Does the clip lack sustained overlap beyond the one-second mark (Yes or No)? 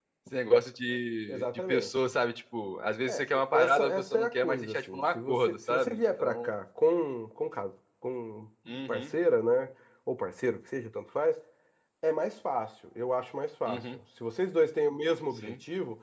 No